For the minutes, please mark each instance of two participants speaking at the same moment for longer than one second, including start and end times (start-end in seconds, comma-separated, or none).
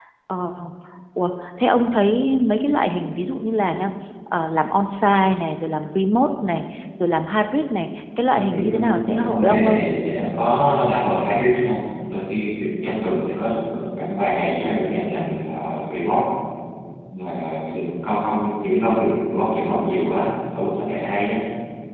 8.3-9.8